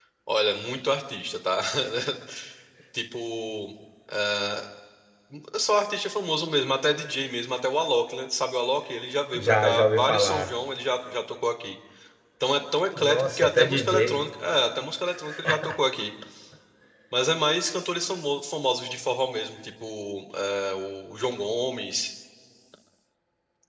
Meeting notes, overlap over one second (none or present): present